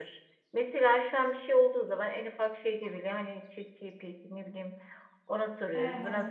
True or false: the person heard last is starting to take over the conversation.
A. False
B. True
A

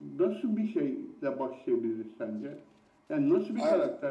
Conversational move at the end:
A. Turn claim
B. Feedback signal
B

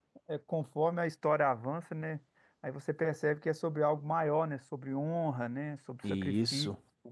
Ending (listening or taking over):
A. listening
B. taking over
A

